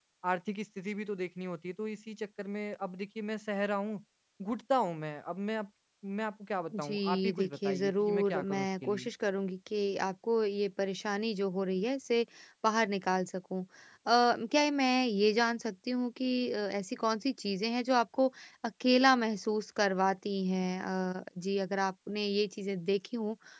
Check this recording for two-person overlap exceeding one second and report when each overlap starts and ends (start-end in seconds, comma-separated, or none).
6.8-9.1